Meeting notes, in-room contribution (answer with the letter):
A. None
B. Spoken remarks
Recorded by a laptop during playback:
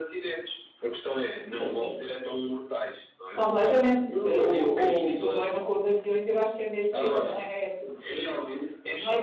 B